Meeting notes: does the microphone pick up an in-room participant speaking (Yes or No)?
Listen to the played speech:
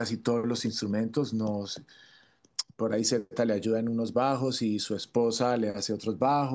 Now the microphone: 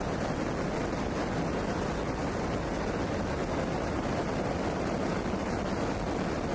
No